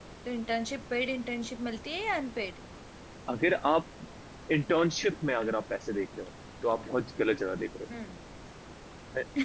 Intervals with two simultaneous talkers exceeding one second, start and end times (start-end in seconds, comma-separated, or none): none